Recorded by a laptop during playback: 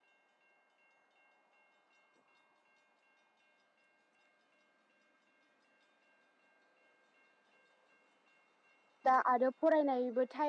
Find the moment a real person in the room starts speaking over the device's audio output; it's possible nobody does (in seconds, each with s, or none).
9.1 s